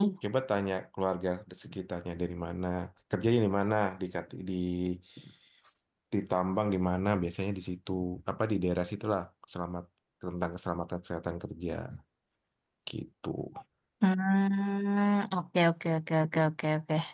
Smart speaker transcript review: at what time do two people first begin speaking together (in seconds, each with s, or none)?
none